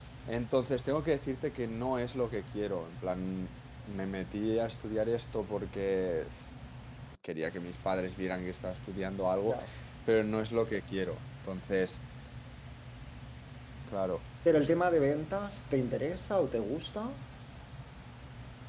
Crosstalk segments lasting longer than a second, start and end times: none

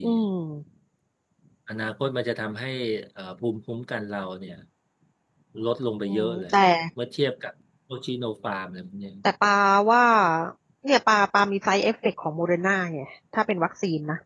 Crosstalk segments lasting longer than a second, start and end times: none

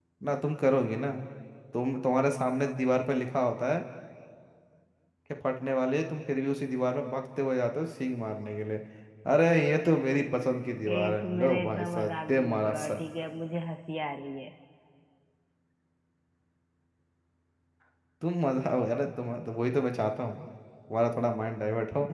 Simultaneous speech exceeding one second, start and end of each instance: 10.9-13.0

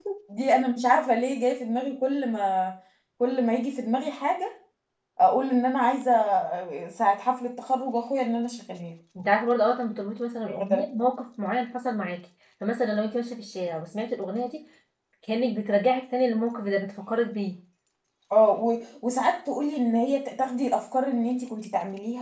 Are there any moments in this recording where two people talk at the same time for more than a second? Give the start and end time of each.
none

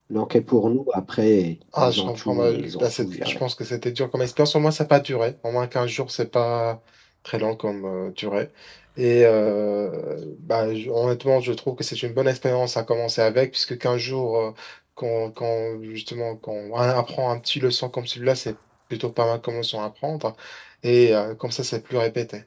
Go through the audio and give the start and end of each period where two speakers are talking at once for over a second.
1.8-3.3

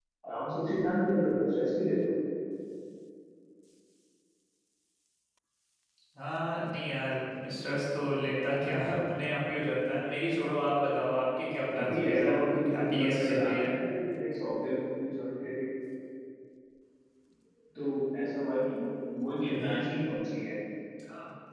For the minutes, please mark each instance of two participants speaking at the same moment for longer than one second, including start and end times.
11.8-13.7

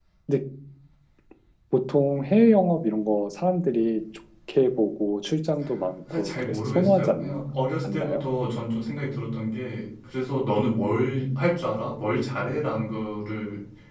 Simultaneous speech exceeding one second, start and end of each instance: 6.1-7.4

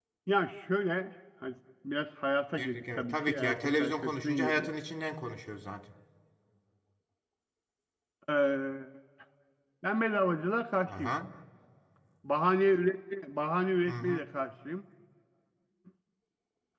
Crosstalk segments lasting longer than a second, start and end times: 2.6-4.7

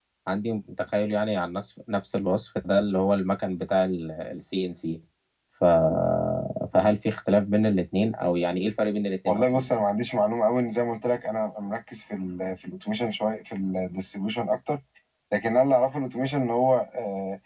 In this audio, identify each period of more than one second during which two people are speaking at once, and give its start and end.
none

